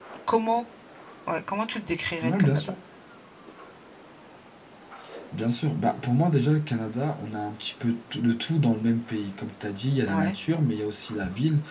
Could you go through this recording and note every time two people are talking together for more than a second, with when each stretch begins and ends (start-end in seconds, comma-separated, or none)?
none